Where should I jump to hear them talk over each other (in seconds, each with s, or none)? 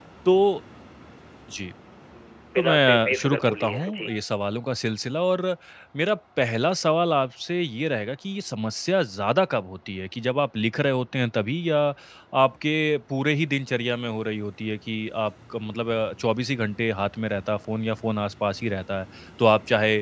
2.6 s